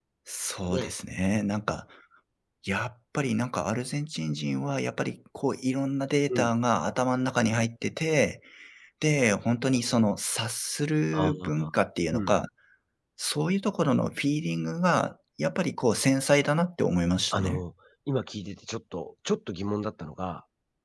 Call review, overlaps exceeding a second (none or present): none